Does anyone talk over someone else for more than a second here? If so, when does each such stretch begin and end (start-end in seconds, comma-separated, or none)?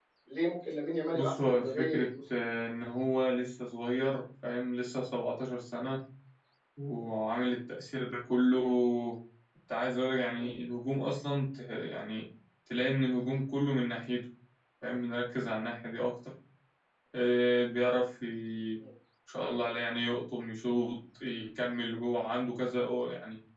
1.1-2.5